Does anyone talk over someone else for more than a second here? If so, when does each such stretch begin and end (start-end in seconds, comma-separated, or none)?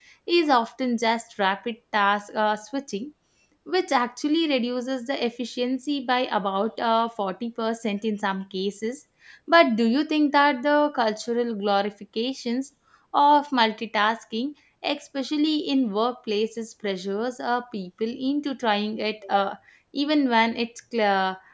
none